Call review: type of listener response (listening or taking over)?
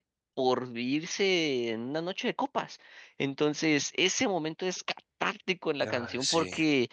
listening